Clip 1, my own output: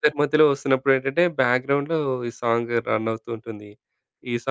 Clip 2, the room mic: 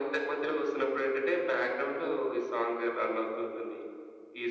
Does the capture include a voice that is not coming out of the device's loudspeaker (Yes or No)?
No